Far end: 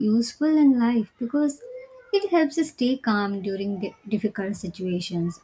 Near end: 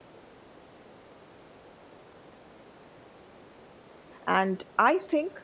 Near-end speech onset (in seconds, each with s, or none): 4.2 s